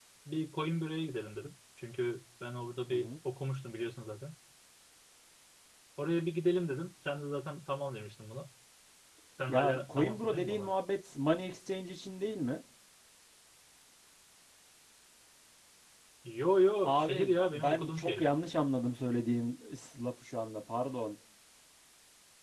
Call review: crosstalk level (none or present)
present